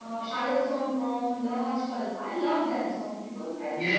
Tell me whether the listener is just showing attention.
No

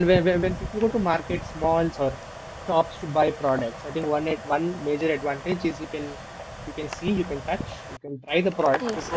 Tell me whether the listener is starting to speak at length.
No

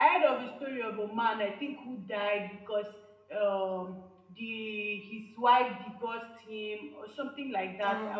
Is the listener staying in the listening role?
Yes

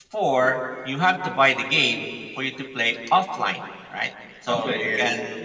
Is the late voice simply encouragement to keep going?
Yes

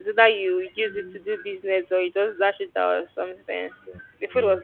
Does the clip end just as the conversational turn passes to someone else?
No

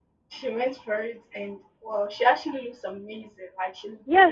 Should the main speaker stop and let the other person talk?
Yes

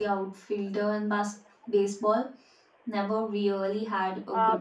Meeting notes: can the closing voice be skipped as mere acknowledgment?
No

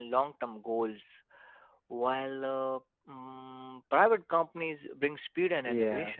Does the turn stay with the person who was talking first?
No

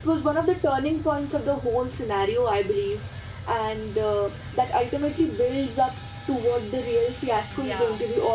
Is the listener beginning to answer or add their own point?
Yes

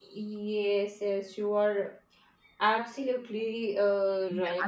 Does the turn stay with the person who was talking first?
No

